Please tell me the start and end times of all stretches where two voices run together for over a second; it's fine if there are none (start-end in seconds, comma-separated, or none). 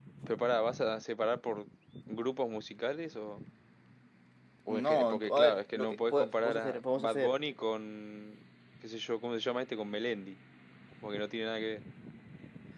4.7-7.4